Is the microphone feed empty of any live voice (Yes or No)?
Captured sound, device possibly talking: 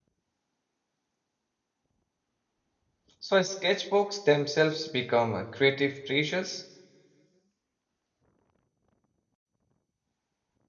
No